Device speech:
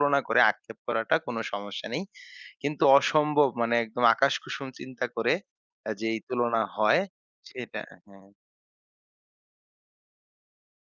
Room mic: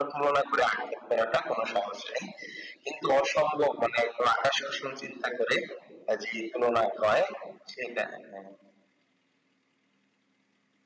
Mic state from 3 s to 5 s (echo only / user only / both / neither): echo only